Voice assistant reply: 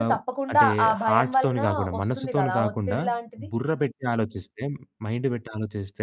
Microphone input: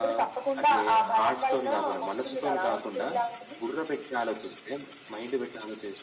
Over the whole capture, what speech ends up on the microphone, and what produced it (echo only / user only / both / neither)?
echo only